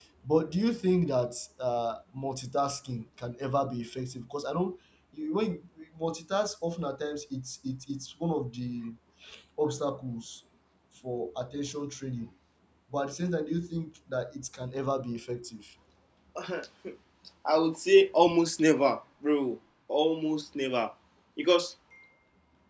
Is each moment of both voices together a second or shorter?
Yes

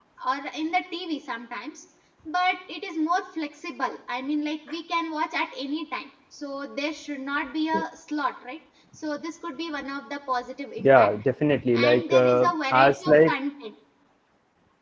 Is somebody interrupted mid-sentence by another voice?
Yes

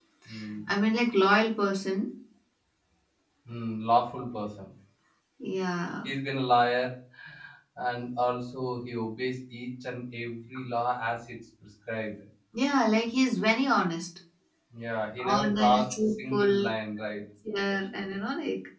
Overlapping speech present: Yes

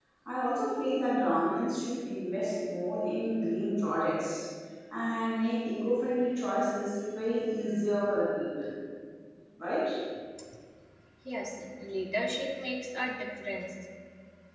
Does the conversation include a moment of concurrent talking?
No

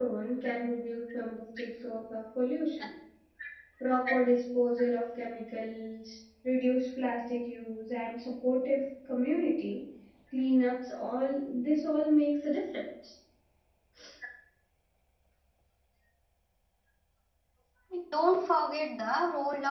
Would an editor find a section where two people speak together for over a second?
No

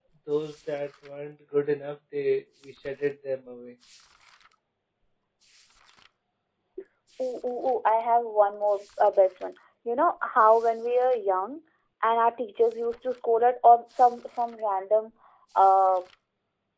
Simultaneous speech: No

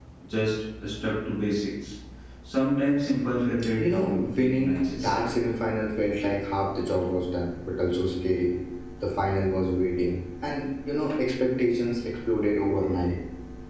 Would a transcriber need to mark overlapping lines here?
Yes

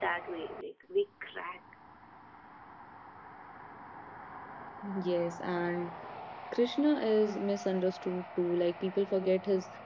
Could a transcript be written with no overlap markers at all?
Yes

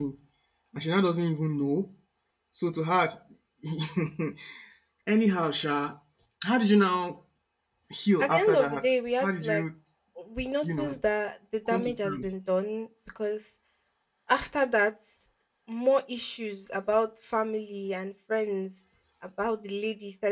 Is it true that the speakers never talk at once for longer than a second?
No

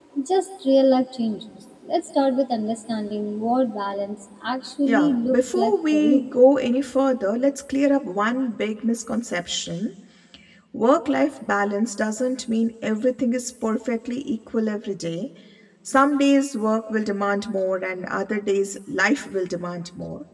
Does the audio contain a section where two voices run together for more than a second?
Yes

